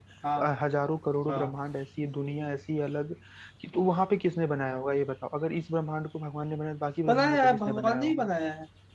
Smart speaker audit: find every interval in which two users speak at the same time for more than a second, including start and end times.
7.1-8.3

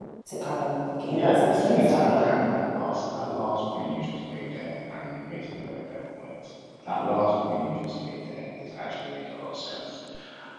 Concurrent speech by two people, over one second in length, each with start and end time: 1.1-2.3

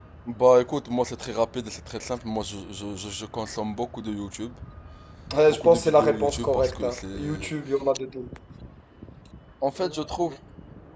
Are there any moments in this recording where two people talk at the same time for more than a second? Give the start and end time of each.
5.5-7.5

